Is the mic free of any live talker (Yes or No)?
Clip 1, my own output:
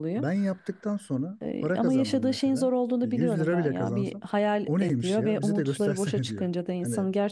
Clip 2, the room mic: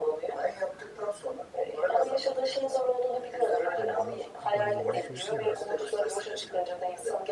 No